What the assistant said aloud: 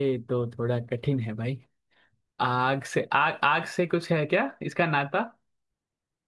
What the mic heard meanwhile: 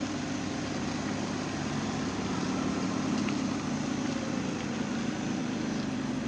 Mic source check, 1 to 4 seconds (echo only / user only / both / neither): neither